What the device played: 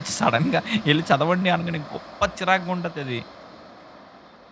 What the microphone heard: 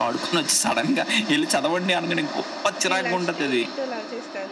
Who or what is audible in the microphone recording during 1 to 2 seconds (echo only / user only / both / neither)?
echo only